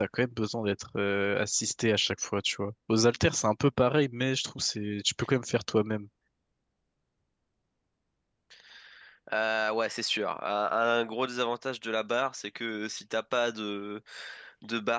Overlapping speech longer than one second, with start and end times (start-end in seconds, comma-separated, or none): none